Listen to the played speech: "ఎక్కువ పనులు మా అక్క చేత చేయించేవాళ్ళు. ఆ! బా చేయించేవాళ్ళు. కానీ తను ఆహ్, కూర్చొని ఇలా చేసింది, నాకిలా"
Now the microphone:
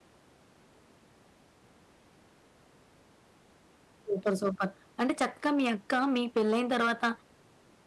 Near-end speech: present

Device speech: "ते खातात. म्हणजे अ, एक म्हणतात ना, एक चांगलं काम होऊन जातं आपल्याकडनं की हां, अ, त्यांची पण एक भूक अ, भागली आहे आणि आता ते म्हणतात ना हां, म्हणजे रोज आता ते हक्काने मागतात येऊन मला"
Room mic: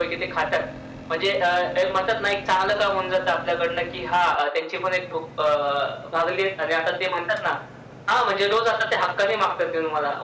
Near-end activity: none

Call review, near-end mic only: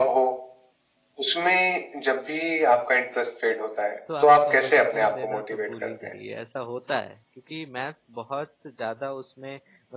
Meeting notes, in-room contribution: present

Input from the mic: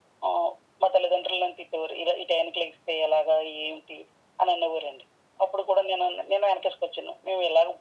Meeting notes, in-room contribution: none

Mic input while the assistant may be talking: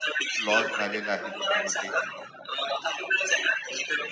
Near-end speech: present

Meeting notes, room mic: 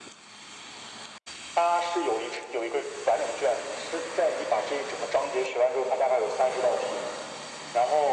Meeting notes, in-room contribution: none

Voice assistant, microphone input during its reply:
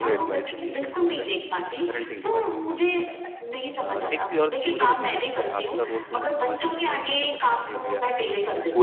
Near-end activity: present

